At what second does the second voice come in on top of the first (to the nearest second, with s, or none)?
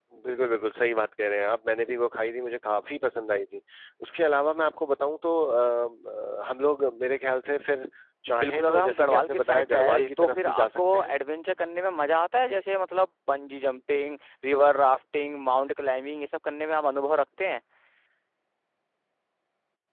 8 s